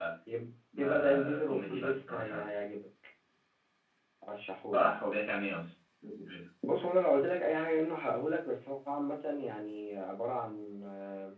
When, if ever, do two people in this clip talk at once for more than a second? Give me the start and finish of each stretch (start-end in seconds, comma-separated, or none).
0.8-2.4